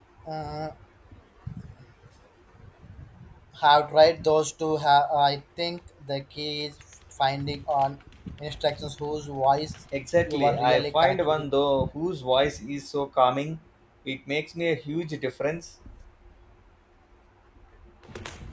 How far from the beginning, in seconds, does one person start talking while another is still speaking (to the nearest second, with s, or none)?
10 s